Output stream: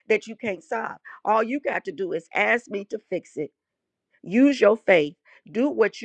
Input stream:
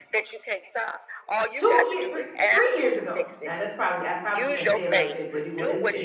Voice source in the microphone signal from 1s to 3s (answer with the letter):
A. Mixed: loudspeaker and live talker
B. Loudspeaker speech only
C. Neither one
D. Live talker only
A